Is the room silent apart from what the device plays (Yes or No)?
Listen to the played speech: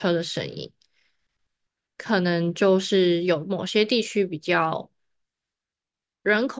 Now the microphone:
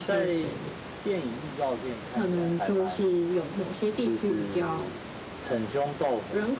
No